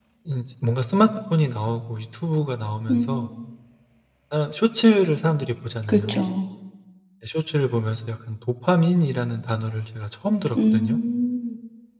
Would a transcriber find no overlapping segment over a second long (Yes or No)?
Yes